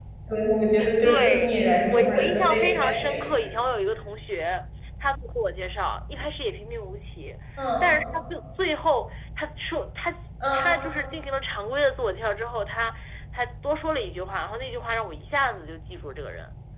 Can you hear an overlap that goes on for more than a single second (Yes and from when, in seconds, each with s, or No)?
Yes, from 1.0 s